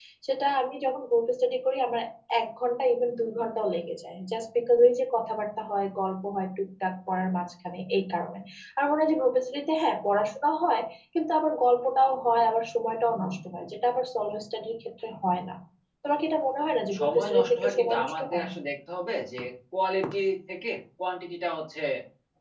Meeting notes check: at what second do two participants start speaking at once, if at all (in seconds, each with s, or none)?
16.9 s